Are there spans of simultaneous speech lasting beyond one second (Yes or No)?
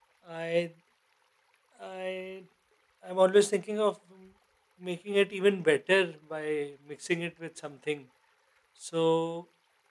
No